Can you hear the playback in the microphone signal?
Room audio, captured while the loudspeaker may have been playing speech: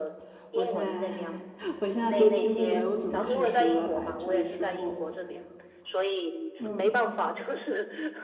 Yes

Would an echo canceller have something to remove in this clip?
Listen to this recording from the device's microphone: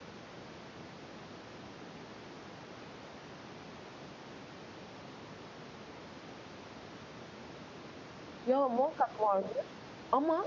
No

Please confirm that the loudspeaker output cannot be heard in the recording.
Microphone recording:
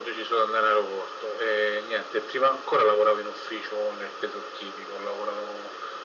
No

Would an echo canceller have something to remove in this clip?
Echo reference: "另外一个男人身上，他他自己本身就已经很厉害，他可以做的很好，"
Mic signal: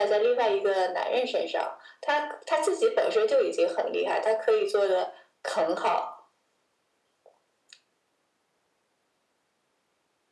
Yes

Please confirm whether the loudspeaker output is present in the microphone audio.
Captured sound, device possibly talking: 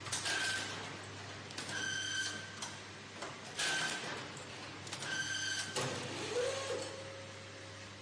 No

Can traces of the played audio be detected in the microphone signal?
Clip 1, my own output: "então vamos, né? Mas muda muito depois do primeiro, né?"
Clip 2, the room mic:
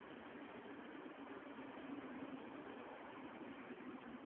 No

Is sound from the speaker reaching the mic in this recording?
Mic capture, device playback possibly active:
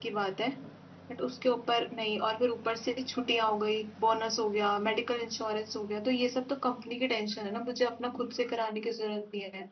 No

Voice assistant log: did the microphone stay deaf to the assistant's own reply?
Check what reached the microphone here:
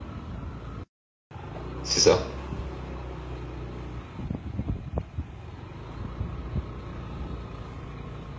Yes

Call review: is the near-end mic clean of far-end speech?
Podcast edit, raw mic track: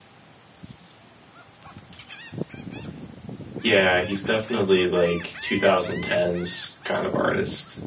Yes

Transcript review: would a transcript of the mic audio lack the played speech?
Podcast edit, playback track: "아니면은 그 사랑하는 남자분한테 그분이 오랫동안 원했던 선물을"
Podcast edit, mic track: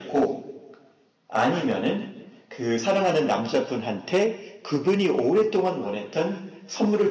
No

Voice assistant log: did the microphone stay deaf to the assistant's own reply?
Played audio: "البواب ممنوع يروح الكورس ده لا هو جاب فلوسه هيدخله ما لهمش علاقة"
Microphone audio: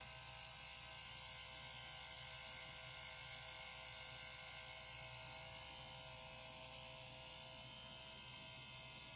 Yes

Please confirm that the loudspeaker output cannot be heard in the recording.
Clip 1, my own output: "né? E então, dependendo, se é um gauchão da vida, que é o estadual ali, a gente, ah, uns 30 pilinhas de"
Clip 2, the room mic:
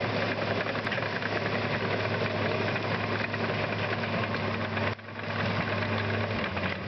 Yes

